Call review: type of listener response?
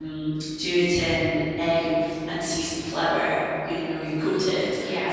listening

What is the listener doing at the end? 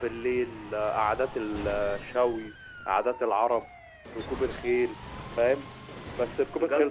taking over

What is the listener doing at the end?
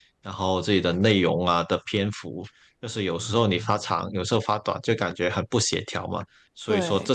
listening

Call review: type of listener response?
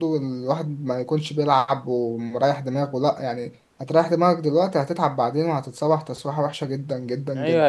taking over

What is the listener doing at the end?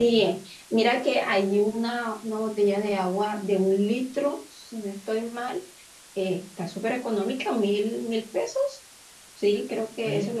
taking over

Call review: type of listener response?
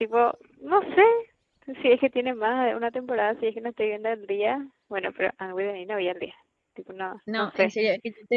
taking over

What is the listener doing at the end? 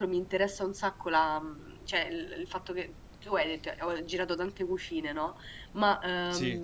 listening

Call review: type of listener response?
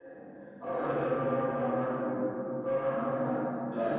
listening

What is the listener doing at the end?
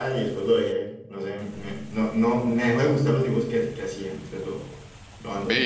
taking over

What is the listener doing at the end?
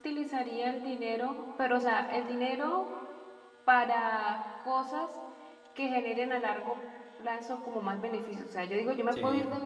listening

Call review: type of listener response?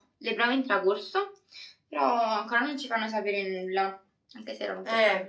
taking over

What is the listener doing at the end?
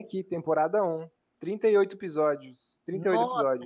taking over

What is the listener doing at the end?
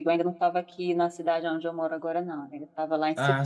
listening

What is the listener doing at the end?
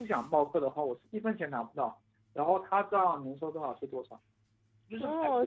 taking over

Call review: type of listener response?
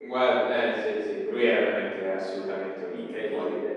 taking over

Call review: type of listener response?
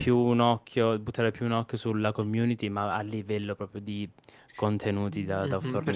taking over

